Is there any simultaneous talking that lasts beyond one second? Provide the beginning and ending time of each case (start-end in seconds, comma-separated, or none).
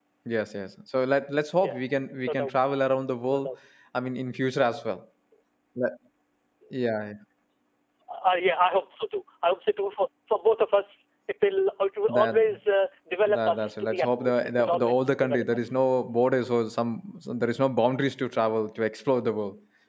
13.3-15.6